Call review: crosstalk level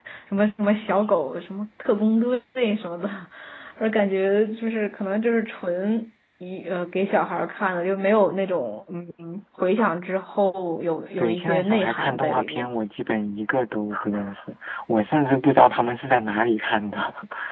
present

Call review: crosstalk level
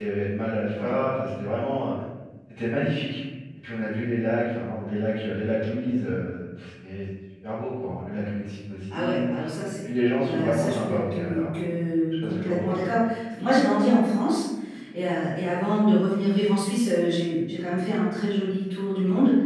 present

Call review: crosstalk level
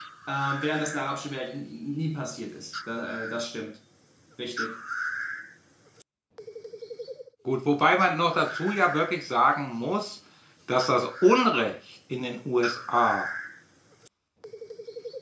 none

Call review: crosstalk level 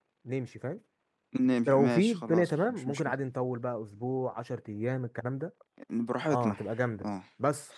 present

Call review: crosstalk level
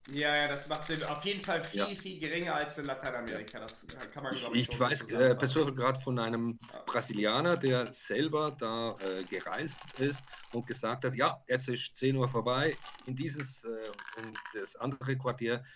present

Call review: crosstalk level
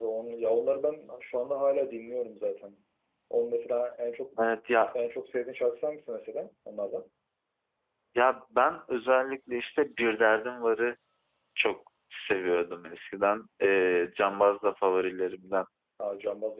none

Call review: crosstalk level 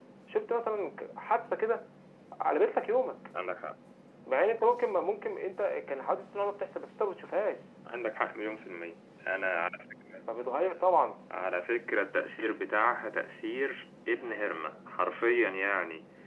none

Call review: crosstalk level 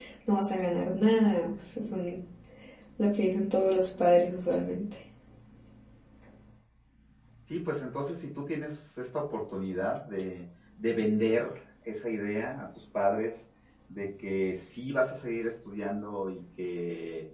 none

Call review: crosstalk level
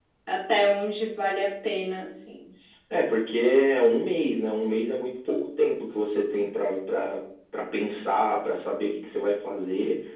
none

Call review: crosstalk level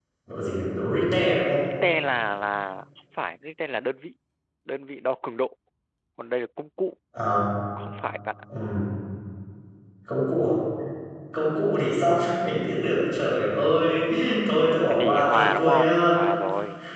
present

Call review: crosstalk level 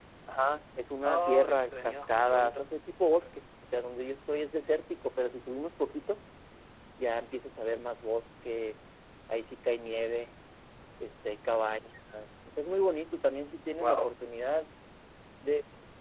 present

